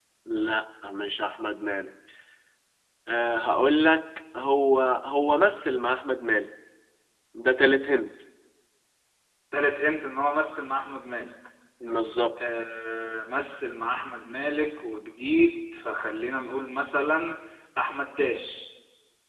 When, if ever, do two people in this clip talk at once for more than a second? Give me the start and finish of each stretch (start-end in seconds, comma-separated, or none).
none